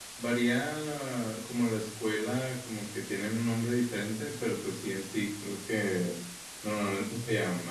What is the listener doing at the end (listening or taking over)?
listening